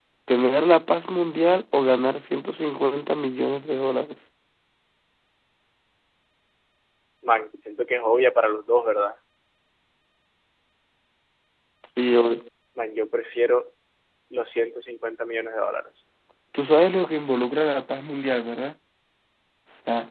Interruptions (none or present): none